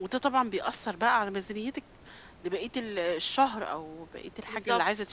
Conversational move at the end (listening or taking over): listening